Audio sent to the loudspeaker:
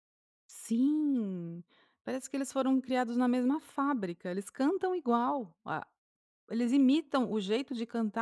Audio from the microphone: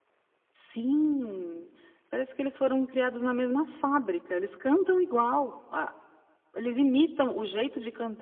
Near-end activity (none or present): none